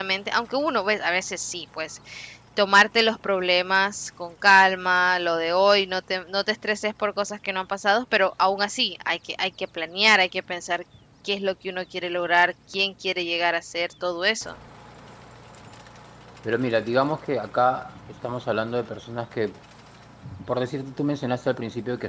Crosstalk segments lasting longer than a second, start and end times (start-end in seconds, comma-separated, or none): none